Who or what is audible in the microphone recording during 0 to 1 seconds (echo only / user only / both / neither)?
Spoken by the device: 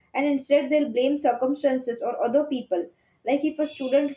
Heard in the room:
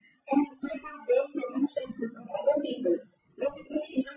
echo only